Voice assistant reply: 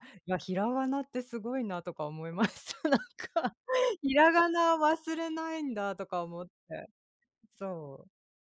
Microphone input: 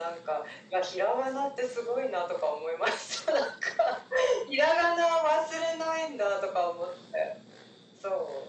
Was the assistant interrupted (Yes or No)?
No